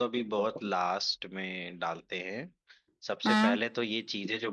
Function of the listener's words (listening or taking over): listening